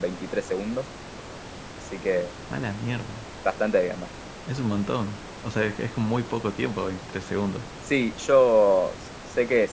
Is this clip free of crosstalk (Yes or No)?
Yes